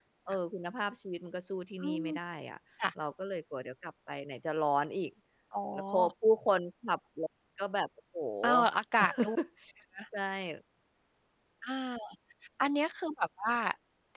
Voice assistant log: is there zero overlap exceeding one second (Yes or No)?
Yes